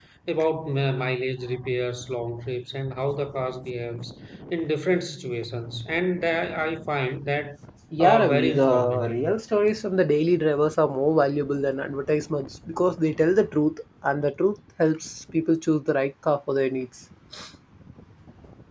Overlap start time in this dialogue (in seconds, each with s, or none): 8.0 s